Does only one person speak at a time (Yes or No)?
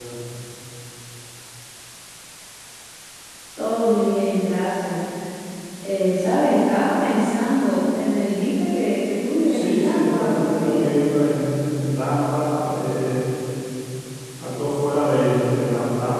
No